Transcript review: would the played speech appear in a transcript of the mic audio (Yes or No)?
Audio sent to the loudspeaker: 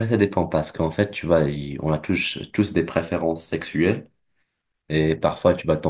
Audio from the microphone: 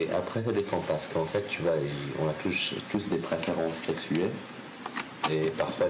Yes